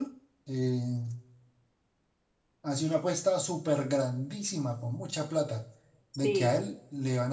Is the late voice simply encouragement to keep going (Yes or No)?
Yes